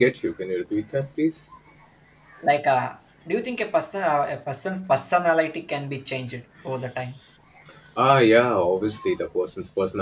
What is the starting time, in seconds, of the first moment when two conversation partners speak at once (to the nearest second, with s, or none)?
none